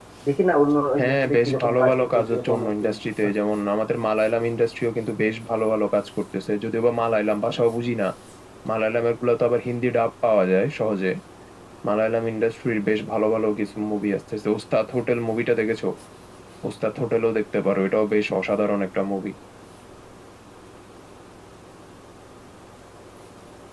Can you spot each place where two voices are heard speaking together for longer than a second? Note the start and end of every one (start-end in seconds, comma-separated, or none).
1.0-2.9